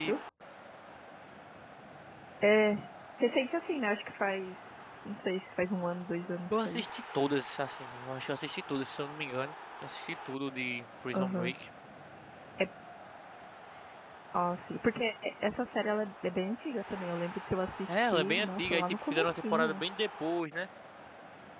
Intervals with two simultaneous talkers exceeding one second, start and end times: 17.9-19.8

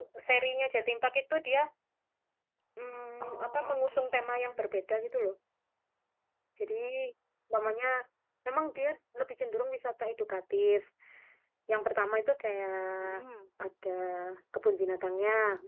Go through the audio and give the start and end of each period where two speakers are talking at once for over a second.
3.2-4.7

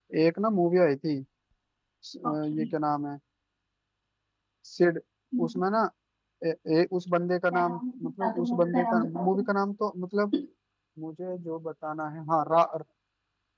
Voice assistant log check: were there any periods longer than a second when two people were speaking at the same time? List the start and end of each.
7.5-9.4

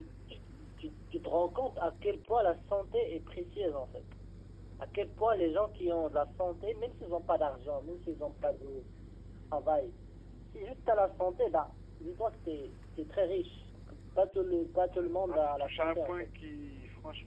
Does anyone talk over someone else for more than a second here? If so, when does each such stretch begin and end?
14.9-16.3

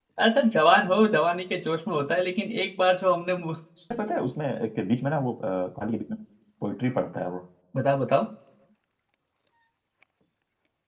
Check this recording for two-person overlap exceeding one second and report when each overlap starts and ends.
none

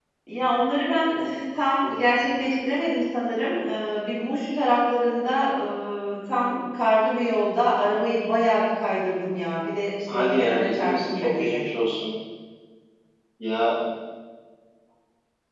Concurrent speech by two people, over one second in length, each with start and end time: 10.1-11.6

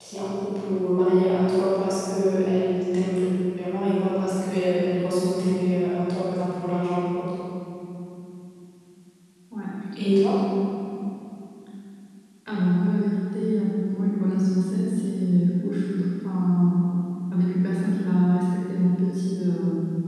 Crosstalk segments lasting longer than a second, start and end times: none

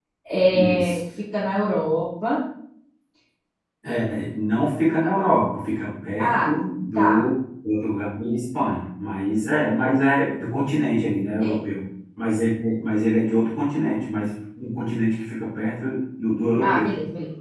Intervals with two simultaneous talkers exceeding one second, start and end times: none

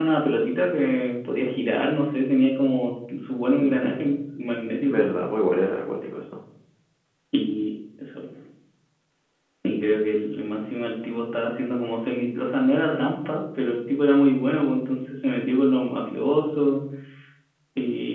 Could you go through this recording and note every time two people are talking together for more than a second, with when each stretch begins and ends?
none

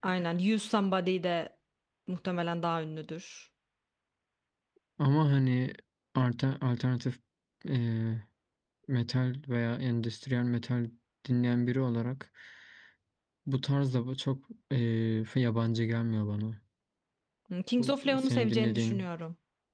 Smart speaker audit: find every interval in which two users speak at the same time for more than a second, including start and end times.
17.8-19.1

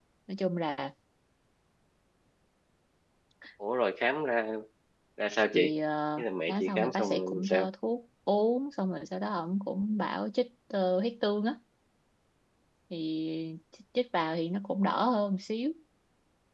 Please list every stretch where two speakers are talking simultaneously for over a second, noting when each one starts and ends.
6.2-7.7

